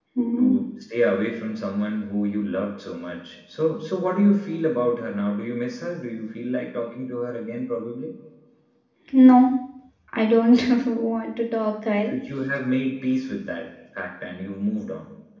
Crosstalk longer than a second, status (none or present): none